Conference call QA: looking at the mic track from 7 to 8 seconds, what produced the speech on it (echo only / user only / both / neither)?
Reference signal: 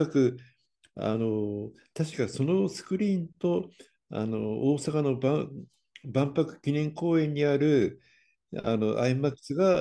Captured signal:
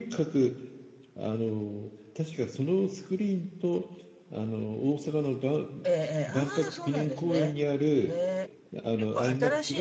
both